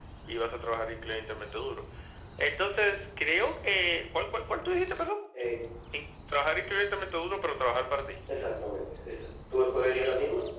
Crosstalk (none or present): none